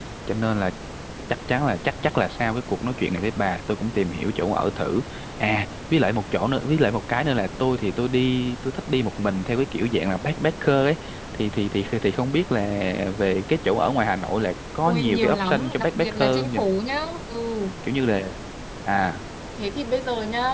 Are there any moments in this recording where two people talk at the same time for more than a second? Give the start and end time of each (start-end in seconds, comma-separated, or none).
14.8-16.6